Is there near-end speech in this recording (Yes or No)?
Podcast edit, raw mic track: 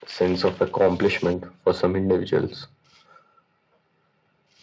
No